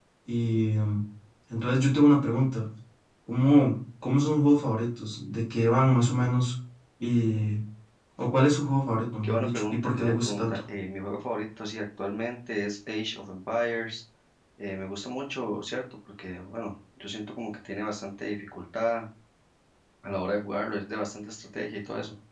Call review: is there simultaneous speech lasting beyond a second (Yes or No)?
Yes